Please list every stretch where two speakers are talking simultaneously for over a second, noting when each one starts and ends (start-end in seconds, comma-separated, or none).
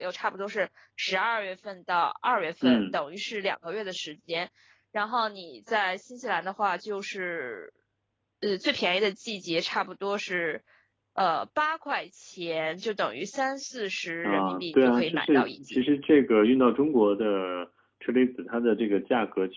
14.2-15.8